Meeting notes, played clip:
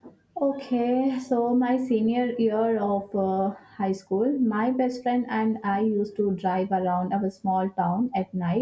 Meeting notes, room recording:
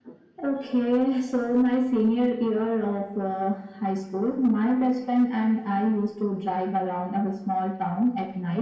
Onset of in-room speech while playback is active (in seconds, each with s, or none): none